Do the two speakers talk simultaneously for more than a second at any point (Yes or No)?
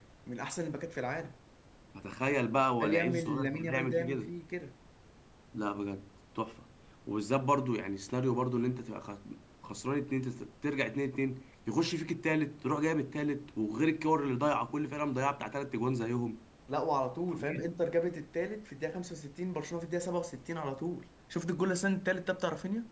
Yes